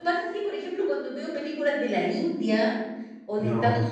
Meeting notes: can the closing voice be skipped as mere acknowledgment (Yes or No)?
Yes